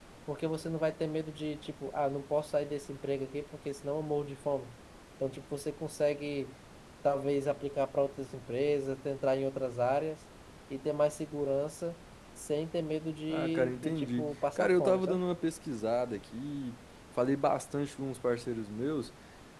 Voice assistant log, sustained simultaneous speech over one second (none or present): present